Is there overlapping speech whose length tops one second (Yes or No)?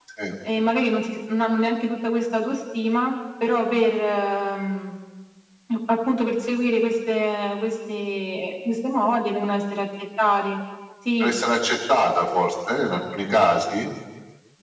No